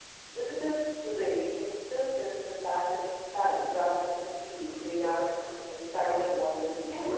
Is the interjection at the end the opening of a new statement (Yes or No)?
Yes